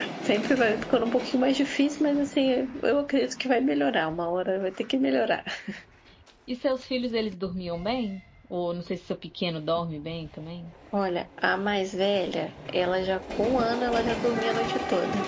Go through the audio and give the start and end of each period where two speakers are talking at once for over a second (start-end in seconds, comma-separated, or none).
none